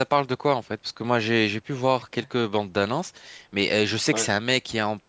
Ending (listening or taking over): listening